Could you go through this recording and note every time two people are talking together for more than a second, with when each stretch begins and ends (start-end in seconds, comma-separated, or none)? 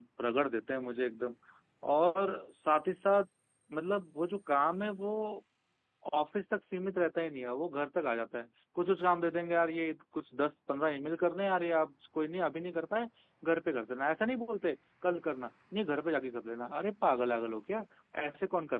none